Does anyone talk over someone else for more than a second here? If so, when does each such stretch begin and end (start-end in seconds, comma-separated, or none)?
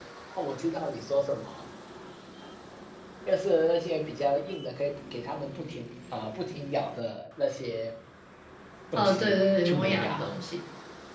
9.0-10.3